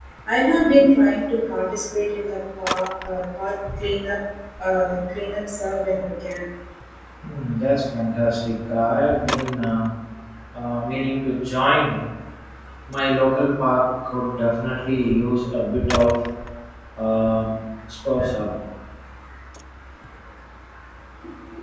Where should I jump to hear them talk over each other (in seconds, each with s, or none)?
none